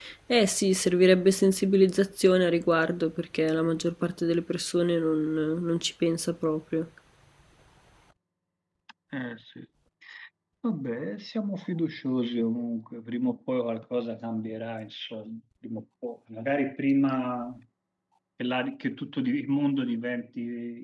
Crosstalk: none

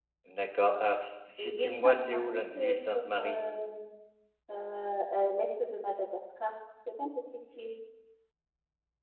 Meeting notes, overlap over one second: present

